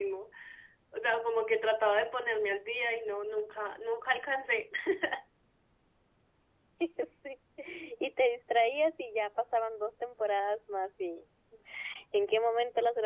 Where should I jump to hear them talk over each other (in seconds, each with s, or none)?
none